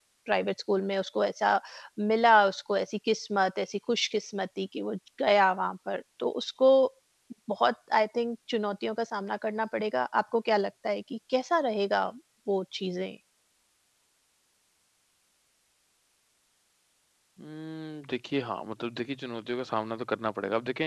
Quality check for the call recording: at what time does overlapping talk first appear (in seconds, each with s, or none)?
none